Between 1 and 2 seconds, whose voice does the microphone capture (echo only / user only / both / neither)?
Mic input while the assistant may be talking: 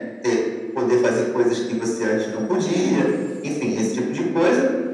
echo only